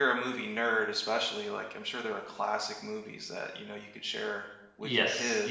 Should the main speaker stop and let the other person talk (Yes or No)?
Yes